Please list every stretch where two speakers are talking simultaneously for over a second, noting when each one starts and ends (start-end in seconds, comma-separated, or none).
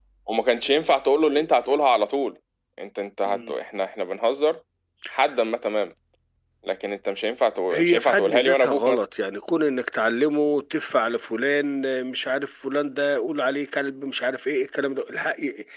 7.7-9.0